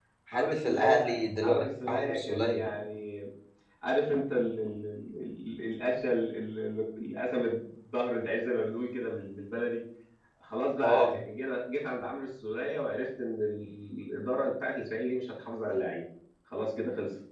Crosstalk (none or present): present